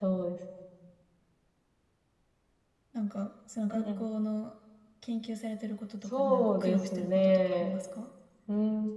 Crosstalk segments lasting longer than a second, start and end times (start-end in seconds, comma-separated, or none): 6.1-7.8